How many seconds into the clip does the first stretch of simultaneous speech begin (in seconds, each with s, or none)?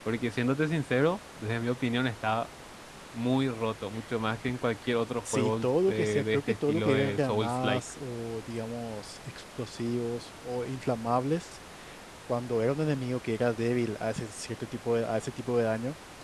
5.2 s